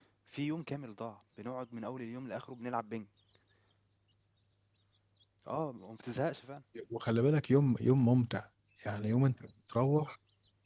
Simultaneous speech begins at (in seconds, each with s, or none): none